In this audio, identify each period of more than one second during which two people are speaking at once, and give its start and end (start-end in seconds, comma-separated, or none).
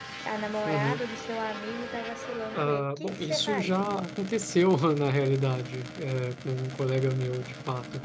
2.5-3.9